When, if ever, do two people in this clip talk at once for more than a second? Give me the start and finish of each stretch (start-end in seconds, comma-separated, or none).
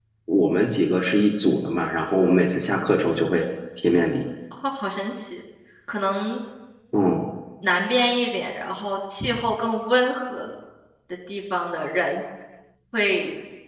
none